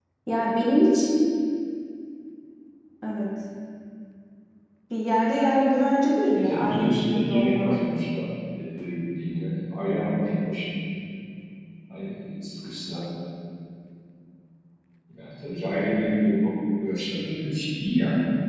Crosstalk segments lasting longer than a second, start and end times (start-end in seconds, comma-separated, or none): 6.3-7.7